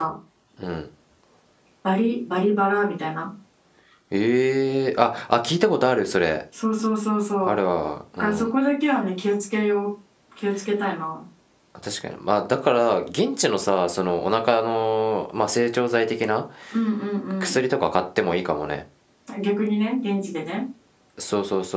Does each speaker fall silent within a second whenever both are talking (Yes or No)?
Yes